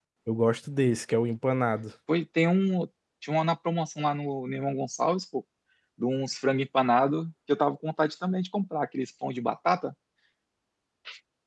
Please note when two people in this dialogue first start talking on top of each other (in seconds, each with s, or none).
none